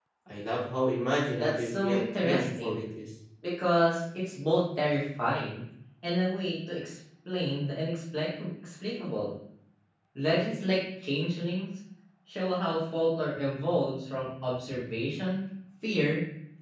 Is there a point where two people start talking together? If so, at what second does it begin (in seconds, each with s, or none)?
1.4 s